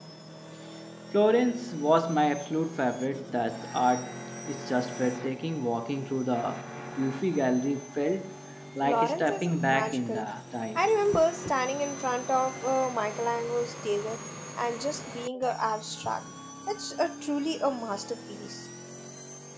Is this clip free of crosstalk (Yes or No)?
No